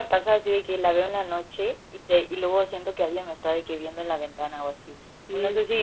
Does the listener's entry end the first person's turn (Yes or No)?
No